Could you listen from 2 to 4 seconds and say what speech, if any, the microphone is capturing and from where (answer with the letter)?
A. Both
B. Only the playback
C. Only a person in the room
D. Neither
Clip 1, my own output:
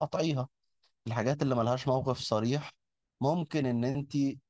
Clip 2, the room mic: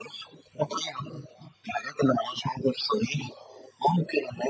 B